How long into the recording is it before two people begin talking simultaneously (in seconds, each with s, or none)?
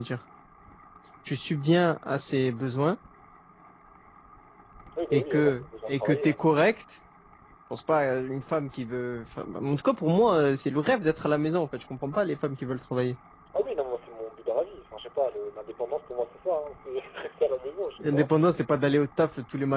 5.1 s